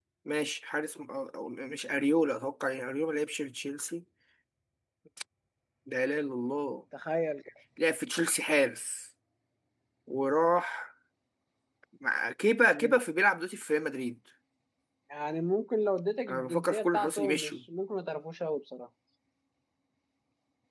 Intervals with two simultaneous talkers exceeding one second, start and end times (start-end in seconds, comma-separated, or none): 16.3-17.5